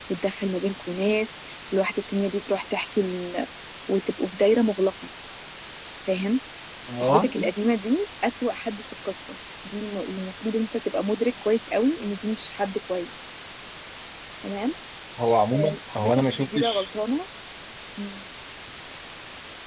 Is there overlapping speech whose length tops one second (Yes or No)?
Yes